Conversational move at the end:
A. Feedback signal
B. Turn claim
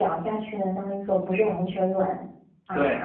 B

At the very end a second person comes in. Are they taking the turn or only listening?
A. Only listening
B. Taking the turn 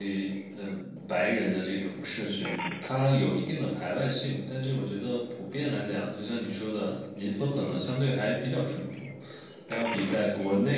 A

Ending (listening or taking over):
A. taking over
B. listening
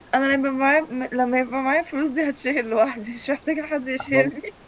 A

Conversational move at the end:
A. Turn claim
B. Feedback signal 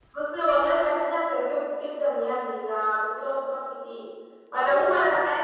B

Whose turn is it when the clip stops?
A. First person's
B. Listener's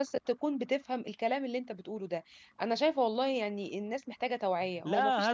B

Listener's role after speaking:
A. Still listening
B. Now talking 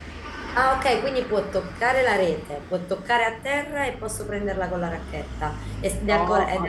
B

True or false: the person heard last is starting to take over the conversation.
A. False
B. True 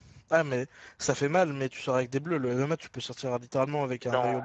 B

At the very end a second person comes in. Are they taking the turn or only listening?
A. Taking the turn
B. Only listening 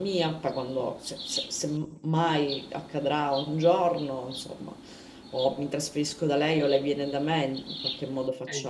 A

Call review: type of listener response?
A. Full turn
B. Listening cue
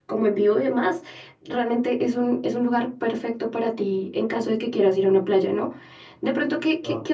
B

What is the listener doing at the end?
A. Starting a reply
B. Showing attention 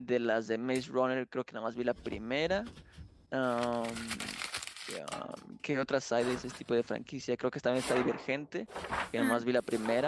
B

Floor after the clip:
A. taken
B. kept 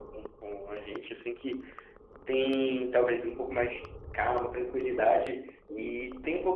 B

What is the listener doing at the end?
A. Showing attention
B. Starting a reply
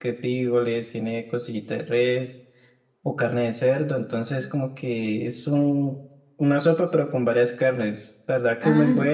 A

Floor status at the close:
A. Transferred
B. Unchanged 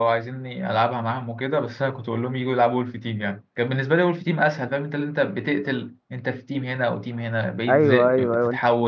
A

